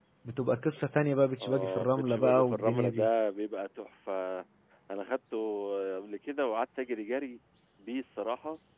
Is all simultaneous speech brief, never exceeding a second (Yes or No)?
No